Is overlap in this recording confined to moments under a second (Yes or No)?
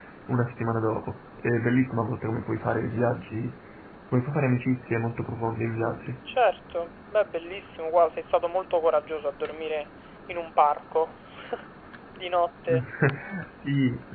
Yes